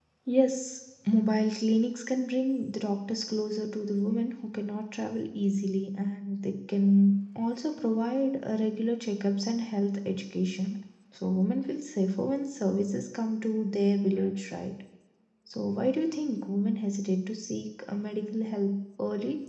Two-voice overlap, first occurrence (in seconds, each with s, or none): none